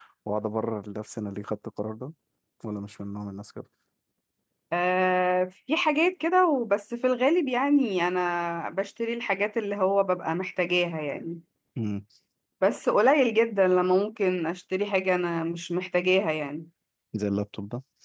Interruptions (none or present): none